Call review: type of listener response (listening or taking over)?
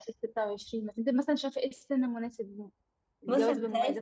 taking over